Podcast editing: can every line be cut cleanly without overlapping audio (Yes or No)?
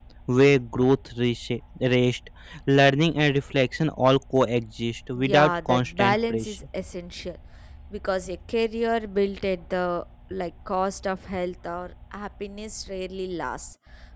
No